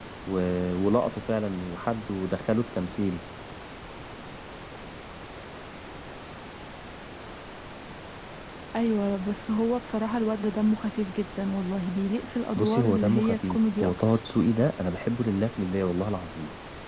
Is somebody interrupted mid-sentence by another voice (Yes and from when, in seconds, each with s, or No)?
Yes, from 12.6 s